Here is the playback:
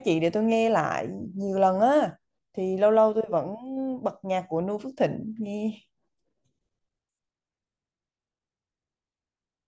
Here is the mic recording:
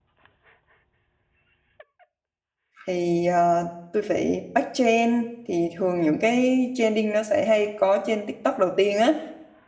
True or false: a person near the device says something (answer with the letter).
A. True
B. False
A